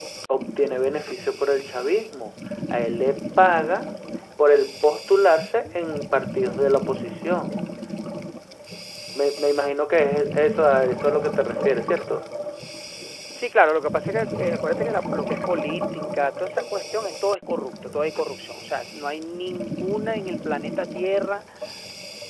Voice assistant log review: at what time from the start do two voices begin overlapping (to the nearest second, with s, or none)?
none